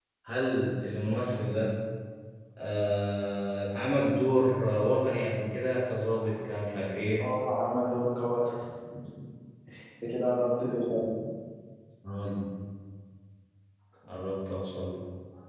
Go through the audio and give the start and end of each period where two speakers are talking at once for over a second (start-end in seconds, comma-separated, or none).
none